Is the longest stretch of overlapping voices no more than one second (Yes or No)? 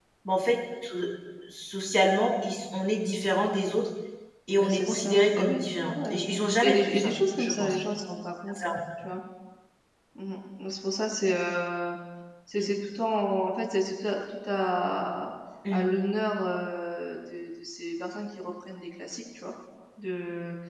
No